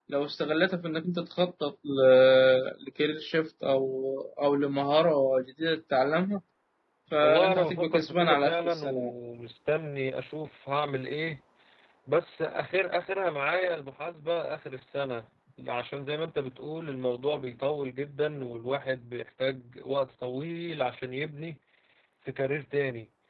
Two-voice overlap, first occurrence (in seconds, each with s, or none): 7.2 s